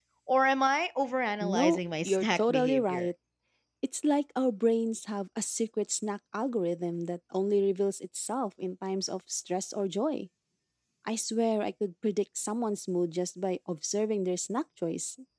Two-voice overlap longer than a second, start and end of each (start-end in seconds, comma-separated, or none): 1.4-3.1